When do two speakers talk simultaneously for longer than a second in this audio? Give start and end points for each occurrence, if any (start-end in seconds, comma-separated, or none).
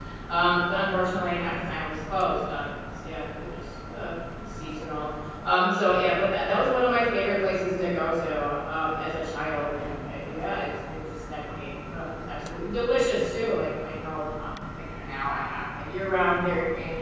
none